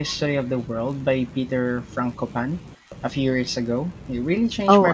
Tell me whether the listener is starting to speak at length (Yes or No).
Yes